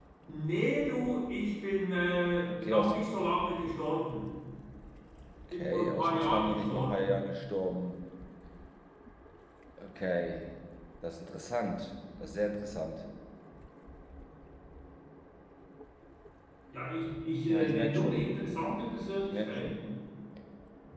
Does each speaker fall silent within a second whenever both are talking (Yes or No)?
No